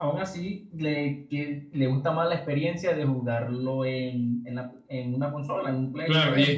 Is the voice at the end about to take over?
Yes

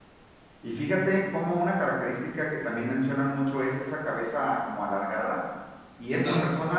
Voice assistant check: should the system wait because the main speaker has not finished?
Yes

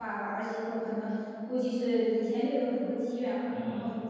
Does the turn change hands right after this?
No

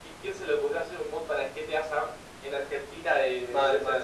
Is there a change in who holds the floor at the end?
Yes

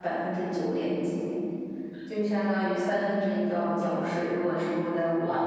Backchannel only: No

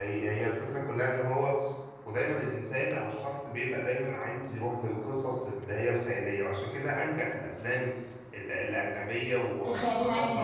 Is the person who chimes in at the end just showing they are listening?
Yes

